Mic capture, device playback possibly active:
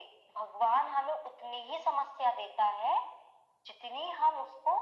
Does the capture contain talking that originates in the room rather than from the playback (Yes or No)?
No